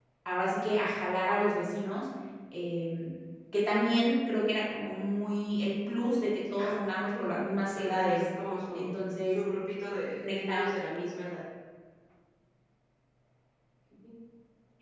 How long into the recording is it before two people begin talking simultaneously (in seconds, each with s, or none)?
6.6 s